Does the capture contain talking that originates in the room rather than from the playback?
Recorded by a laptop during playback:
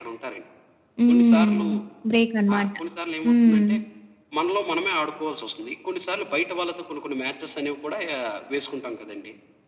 Yes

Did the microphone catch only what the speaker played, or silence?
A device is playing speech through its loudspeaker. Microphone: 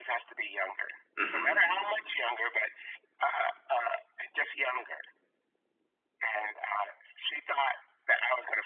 No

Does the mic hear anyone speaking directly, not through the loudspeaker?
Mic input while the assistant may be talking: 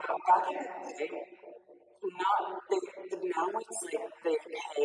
Yes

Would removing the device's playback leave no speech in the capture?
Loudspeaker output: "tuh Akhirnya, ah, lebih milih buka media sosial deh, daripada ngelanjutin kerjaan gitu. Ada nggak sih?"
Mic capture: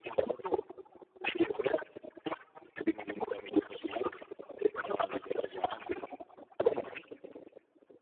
Yes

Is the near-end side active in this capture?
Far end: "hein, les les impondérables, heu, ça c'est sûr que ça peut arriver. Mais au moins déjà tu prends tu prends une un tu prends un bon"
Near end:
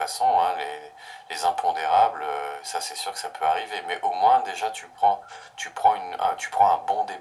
No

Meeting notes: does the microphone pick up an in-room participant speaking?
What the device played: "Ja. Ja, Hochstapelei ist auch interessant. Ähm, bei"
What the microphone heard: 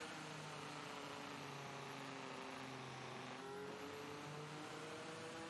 No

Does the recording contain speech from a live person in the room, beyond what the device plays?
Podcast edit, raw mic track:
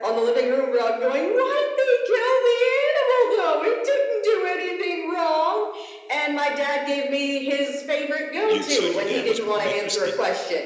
Yes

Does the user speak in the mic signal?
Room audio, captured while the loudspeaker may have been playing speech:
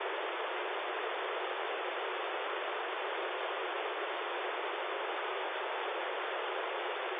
No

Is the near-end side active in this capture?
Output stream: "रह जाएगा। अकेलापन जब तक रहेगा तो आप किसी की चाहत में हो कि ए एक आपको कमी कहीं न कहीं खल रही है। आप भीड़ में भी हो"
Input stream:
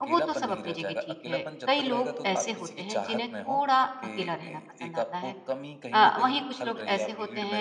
Yes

